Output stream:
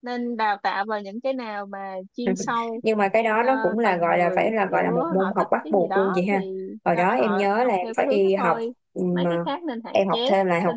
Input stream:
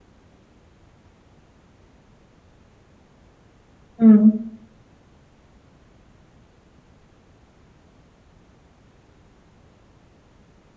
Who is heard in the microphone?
user only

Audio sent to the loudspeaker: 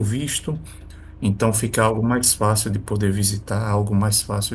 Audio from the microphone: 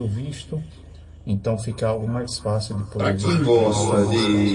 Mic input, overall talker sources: both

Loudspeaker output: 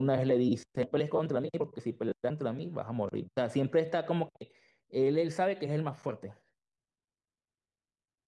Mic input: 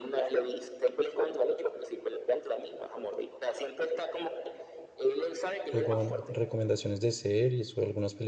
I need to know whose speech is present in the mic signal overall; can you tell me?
both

